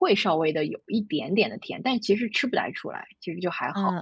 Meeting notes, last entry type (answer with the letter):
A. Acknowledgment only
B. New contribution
B